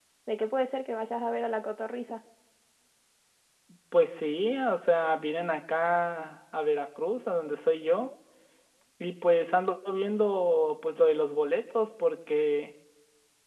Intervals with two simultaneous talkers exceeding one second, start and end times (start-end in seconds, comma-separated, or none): none